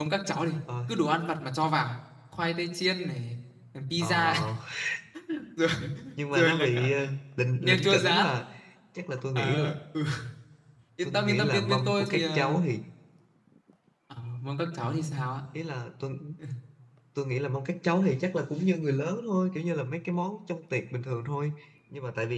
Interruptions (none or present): present